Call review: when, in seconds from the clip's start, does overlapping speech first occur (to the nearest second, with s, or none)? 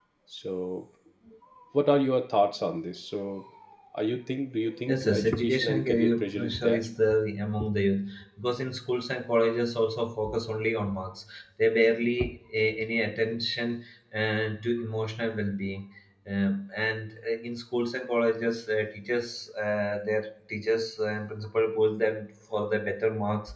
5 s